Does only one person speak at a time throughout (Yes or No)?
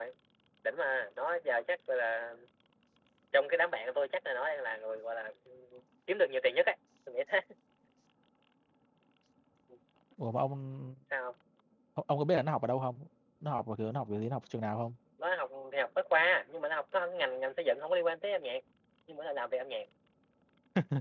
Yes